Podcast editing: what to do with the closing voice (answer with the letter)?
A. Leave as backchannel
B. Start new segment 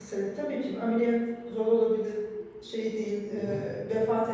A